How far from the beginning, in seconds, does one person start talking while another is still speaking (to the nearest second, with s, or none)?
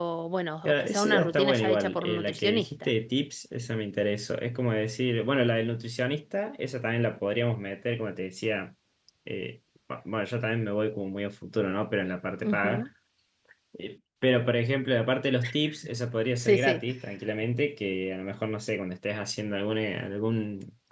1 s